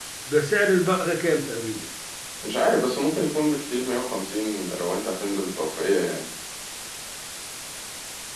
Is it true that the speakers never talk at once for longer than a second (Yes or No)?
Yes